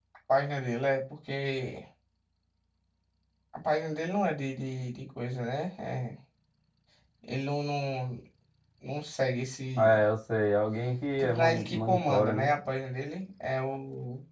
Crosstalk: present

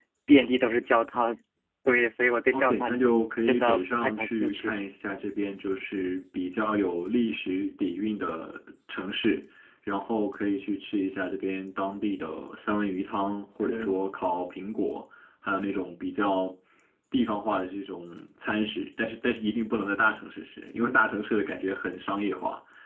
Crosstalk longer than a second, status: present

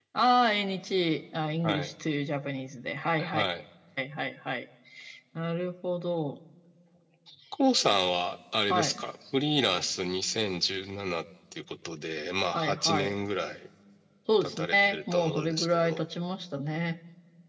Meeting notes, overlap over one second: present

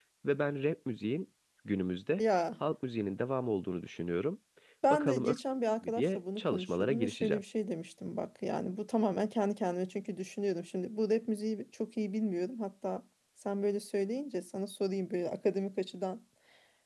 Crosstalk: present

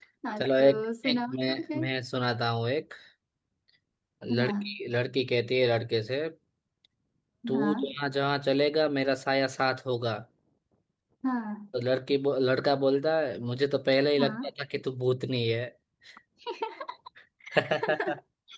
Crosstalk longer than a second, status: present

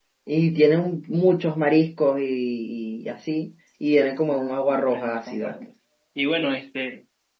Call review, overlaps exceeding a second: present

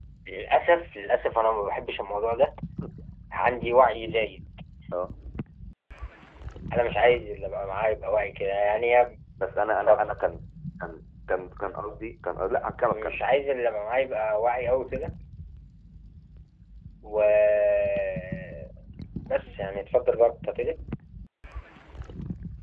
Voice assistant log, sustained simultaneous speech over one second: none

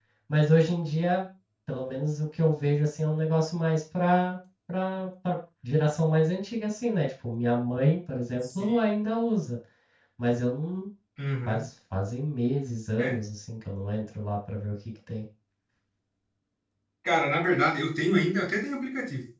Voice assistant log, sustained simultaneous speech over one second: none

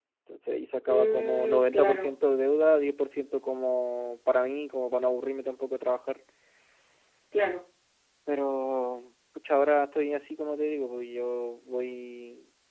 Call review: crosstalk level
present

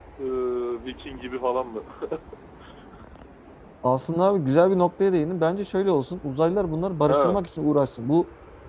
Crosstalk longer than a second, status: none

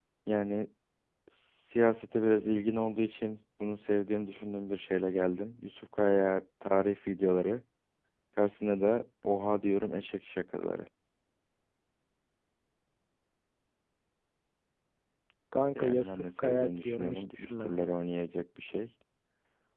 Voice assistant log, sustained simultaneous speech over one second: present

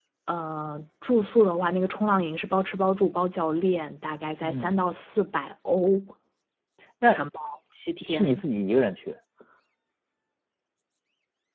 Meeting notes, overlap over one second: none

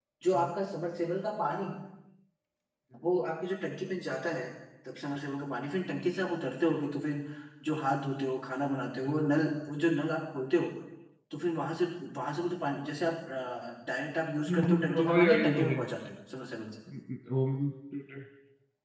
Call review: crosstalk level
present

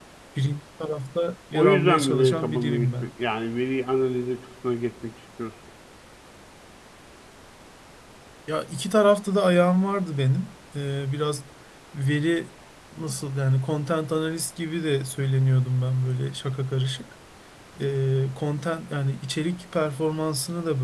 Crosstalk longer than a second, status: present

